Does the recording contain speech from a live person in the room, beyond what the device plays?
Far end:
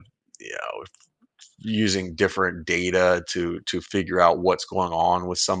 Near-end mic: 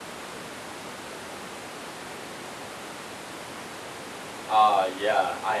Yes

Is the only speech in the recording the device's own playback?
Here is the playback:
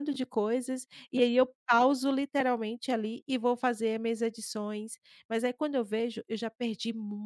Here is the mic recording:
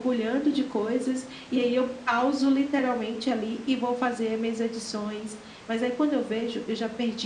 Yes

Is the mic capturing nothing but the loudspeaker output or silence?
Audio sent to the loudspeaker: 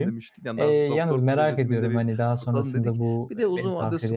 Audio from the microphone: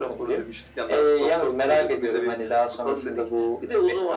Yes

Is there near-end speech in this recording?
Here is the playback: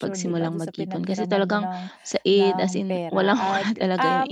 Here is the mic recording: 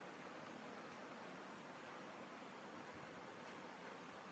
No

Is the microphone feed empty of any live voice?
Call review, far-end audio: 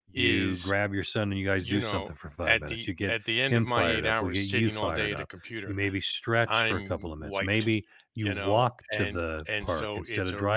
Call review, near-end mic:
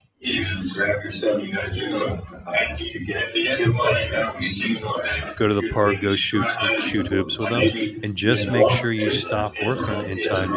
No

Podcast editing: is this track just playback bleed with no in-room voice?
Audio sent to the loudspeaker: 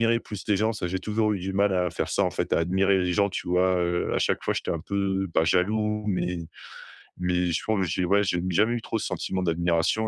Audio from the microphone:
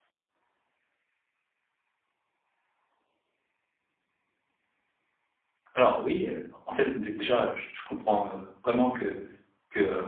No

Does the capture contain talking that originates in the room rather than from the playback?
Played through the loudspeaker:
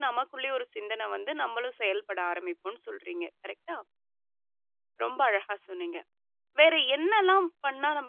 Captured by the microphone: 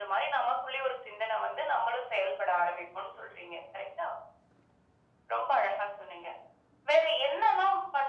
No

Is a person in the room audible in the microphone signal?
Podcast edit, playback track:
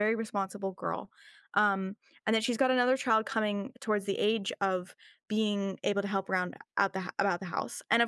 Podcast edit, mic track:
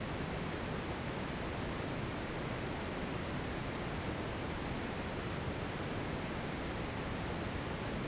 No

